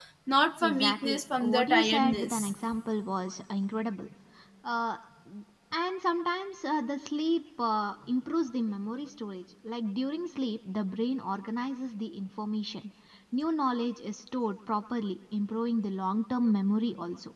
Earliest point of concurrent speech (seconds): 0.6 s

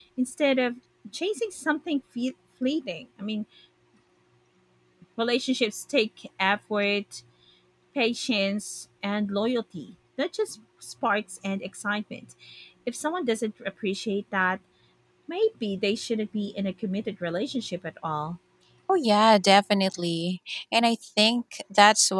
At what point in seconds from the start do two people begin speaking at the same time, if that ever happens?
none

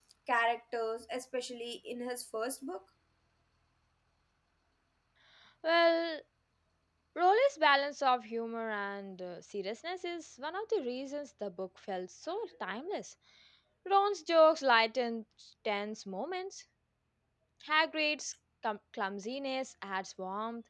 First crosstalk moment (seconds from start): none

